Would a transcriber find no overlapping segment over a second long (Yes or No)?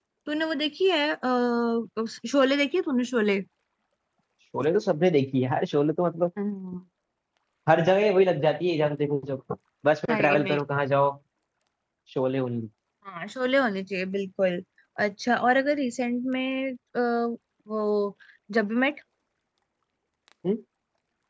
Yes